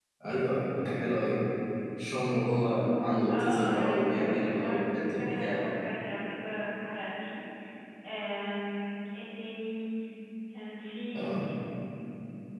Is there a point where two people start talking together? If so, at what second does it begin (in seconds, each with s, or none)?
3.2 s